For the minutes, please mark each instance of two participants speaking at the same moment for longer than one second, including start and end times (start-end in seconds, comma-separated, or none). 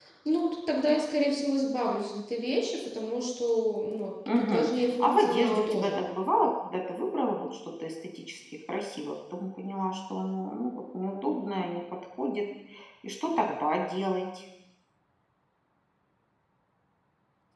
4.3-6.0